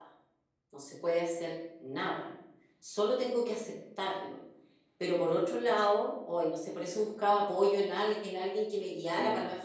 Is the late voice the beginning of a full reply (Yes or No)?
No